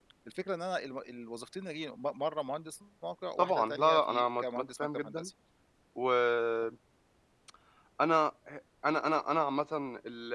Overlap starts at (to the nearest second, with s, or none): 3 s